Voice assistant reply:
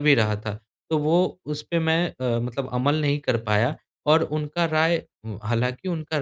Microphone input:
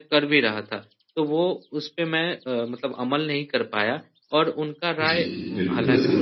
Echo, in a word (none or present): present